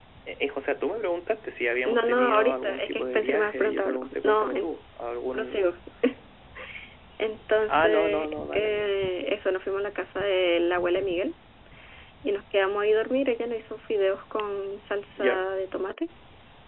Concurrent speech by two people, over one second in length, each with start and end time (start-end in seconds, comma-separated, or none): 1.9-4.8, 7.7-8.9